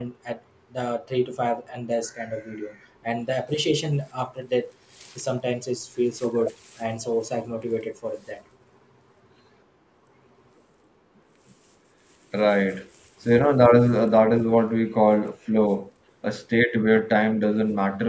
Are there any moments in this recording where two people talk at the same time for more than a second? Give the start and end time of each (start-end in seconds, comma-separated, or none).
none